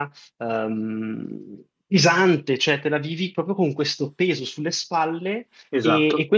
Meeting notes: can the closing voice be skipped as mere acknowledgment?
Yes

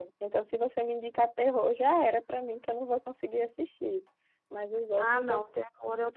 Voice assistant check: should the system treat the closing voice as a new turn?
Yes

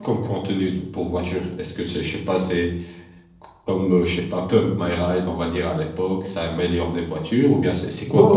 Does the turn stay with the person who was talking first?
No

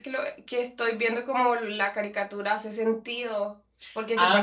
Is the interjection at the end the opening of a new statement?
Yes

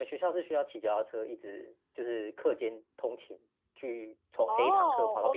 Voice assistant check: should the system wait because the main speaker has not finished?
No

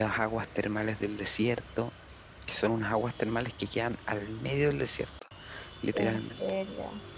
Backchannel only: No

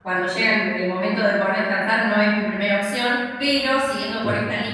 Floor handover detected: No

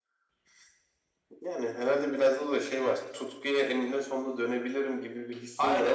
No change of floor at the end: No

